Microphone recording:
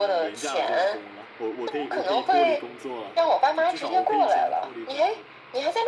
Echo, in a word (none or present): present